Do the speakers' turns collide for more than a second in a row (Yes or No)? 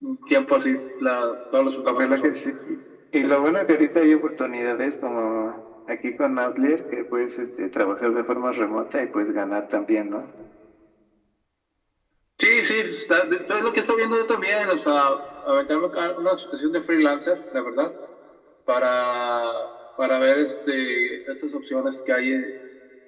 No